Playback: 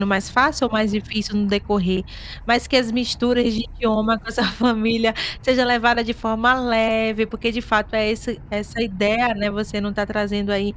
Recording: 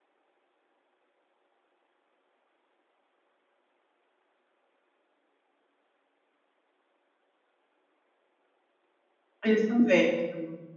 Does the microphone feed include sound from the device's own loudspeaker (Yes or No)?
No